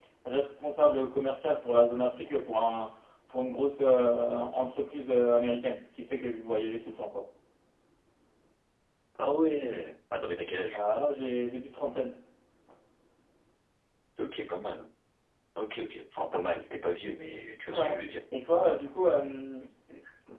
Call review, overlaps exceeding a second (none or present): none